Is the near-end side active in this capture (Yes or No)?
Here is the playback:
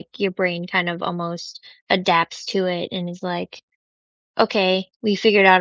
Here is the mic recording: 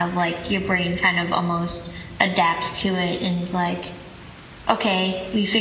No